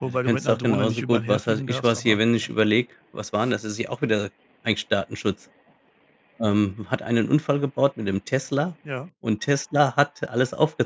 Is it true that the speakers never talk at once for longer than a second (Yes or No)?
No